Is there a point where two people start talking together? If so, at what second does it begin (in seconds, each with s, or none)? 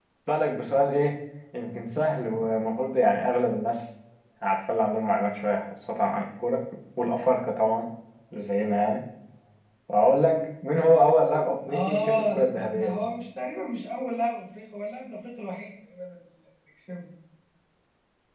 11.7 s